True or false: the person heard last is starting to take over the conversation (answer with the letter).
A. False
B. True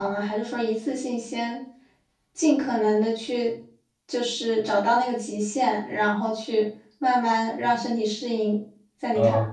B